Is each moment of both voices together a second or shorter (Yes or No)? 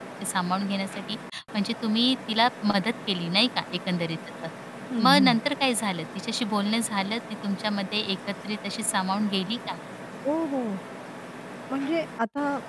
Yes